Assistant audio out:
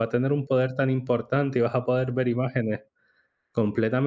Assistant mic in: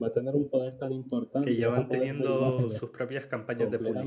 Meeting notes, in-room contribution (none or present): present